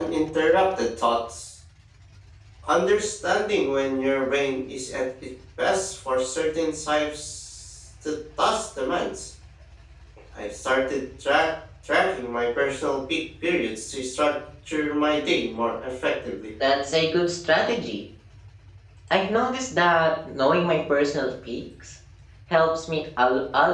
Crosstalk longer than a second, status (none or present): none